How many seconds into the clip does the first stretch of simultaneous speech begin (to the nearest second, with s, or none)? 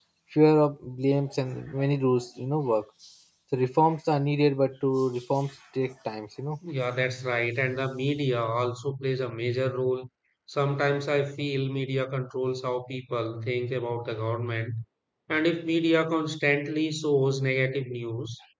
none